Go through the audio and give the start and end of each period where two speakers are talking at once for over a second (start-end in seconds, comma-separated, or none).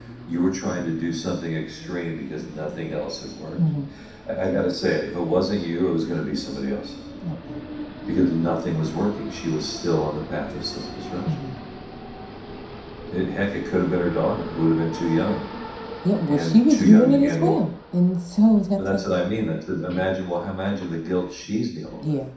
16.3-17.6